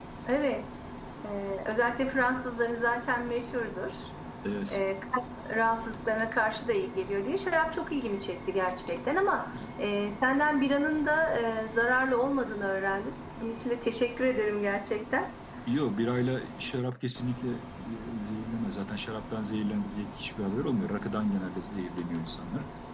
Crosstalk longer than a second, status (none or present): none